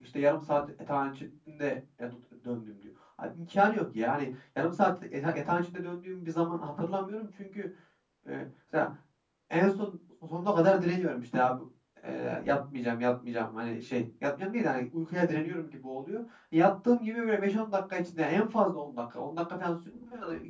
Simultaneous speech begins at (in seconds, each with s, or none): none